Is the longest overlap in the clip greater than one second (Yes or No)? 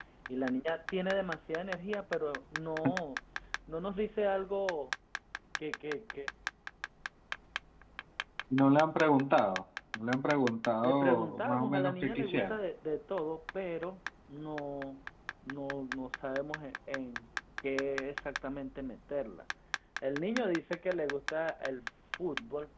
Yes